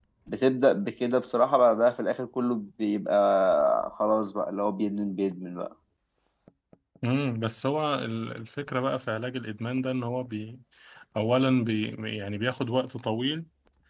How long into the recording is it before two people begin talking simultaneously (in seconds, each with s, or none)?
none